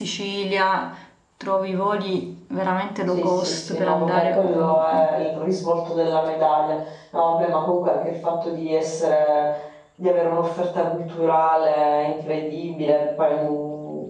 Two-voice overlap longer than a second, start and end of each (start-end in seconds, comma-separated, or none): 3.1-5.2